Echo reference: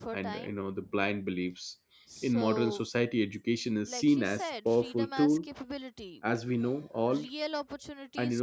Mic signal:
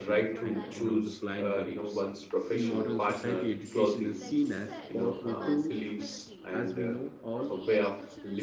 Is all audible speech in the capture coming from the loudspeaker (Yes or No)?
No